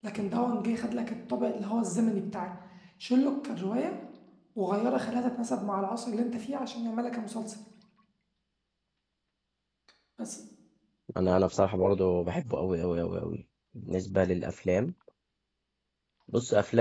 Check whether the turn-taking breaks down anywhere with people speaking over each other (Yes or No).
No